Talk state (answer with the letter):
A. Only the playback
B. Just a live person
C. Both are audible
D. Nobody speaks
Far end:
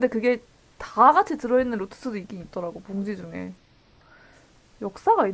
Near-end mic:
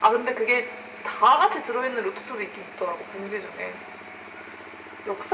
A